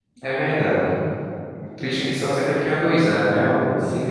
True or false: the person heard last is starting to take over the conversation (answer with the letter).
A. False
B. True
B